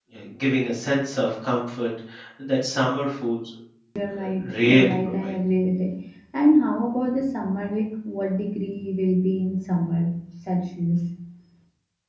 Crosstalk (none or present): present